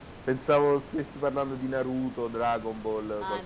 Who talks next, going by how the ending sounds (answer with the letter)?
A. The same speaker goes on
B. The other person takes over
B